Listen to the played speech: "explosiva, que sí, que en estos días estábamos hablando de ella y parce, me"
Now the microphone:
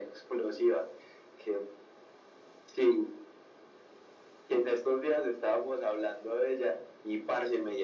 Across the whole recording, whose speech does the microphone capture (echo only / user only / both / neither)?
echo only